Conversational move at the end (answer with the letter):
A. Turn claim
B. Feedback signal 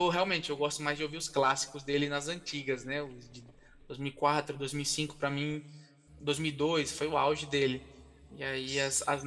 B